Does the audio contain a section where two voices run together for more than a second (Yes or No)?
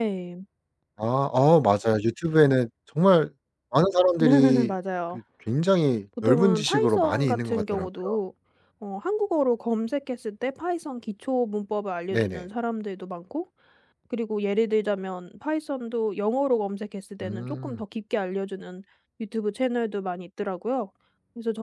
Yes